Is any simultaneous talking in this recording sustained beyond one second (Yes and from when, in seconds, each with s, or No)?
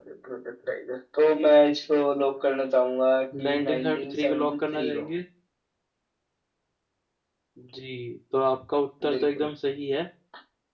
Yes, from 3.4 s